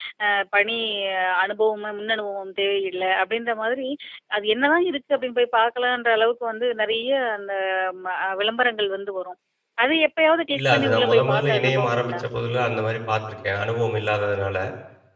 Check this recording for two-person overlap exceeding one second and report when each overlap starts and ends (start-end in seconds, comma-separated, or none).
10.6-12.2